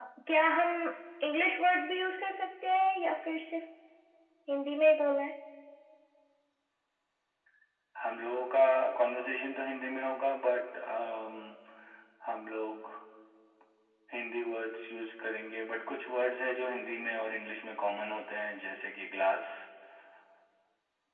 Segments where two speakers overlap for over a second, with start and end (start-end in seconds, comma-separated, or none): none